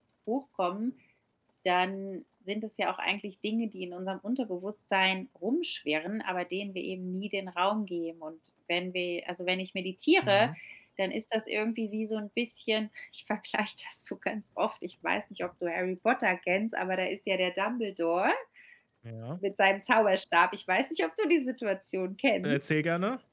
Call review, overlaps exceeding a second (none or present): none